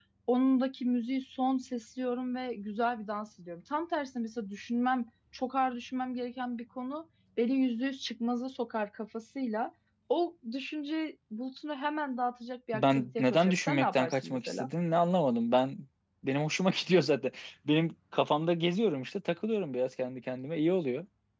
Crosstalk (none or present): present